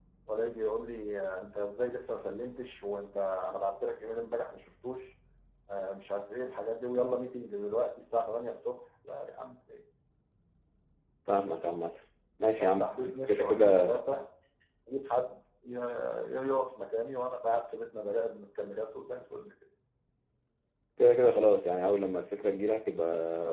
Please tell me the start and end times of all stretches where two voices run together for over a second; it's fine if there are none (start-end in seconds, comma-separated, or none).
12.6-13.9